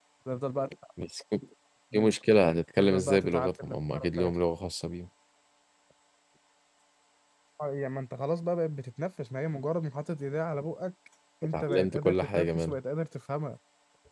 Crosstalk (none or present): present